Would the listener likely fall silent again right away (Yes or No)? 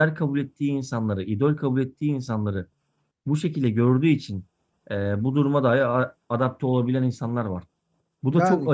No